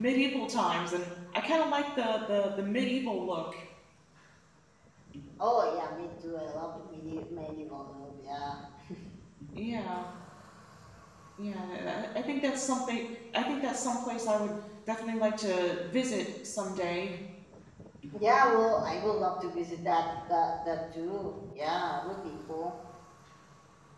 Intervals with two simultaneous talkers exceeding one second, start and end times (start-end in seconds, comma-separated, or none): none